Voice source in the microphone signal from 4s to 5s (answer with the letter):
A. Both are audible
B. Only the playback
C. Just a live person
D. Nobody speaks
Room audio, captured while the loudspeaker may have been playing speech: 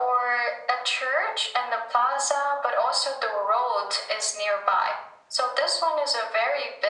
B